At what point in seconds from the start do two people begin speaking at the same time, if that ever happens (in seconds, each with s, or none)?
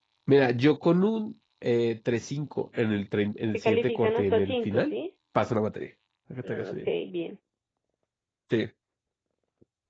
3.5 s